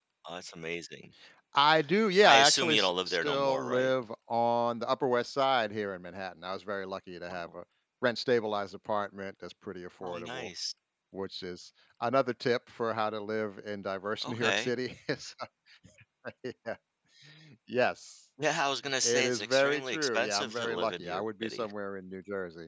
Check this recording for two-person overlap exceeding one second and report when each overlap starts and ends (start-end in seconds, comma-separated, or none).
2.2-3.9, 19.0-21.7